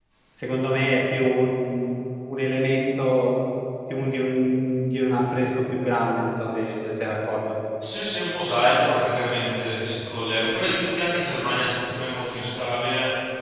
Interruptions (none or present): none